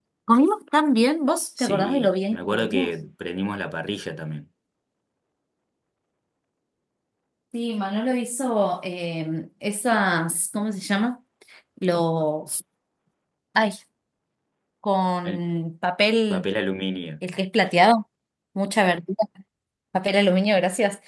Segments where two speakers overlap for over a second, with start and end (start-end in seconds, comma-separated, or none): 1.6-2.9